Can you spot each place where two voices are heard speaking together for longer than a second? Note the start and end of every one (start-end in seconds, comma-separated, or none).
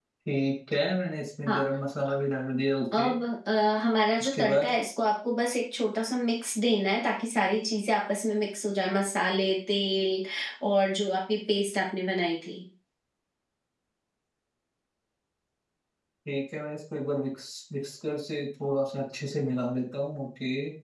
none